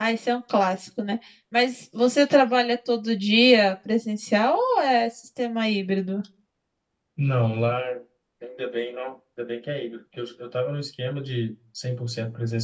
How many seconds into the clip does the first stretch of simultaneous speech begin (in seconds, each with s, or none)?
none